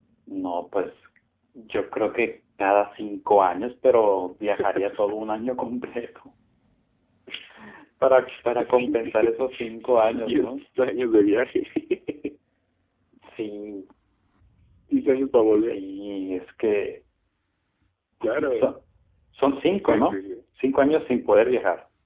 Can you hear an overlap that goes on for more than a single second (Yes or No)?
Yes